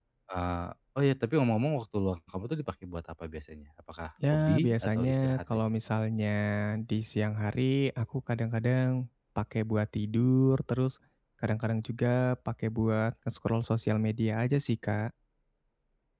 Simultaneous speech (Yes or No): Yes